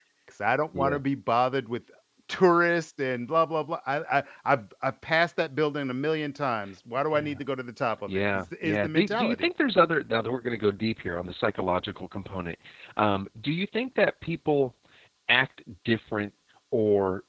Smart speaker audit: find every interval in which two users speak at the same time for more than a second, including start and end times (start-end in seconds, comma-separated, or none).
8.1-9.5